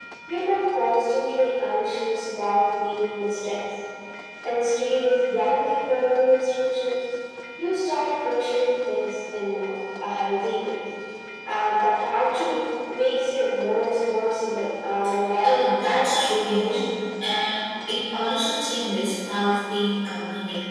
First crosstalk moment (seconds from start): 15.4 s

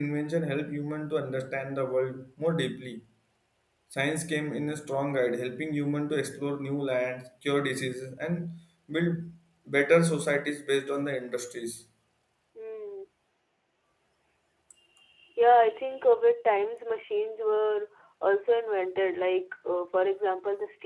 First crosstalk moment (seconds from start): none

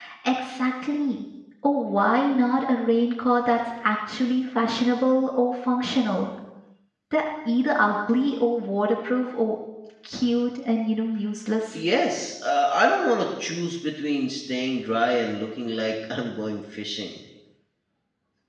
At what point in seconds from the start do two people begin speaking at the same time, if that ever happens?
none

